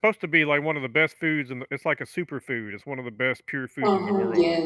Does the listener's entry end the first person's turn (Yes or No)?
Yes